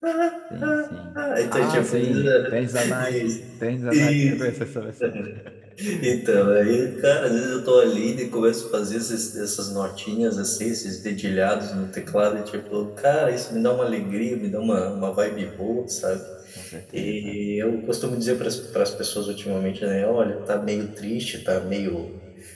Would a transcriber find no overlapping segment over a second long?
No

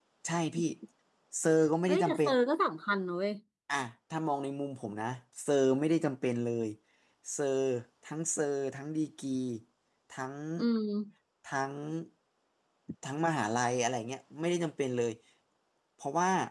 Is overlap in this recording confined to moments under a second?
Yes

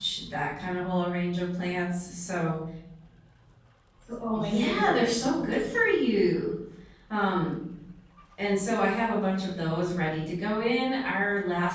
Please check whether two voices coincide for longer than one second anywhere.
Yes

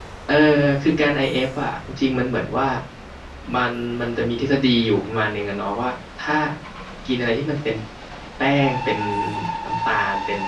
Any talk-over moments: No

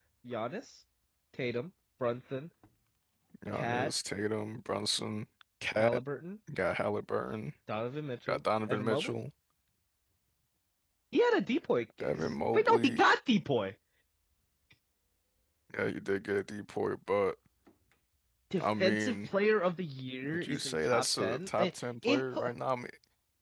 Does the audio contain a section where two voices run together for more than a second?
Yes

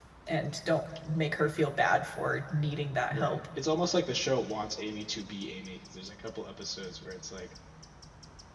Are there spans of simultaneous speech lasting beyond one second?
No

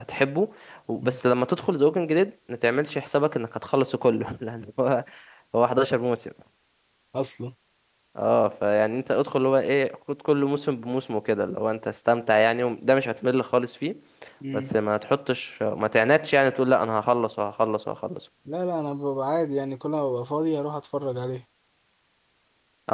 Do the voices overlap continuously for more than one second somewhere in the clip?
No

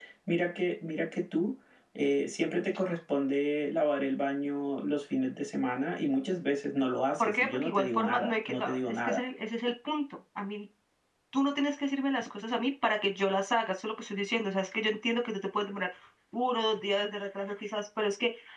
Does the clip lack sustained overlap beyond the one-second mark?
No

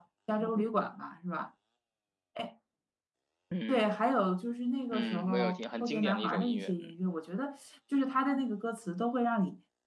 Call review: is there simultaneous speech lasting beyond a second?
Yes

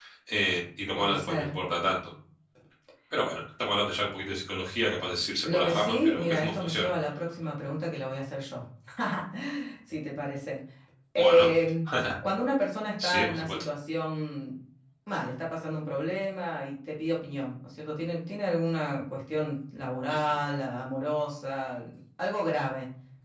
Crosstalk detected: Yes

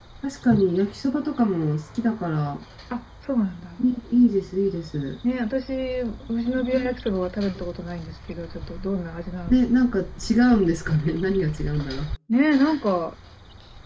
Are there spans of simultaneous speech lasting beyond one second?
No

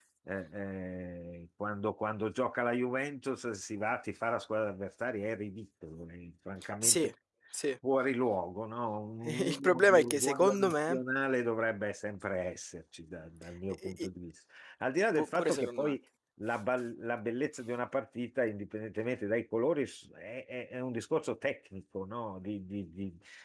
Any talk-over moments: Yes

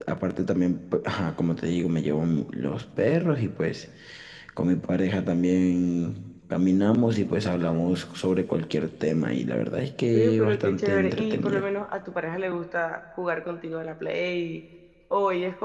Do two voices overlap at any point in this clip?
Yes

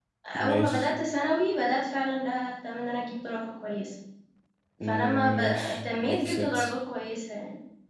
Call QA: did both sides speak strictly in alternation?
No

